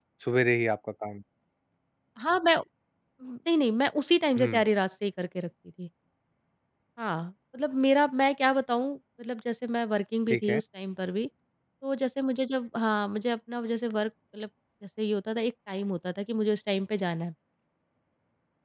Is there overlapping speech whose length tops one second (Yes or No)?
No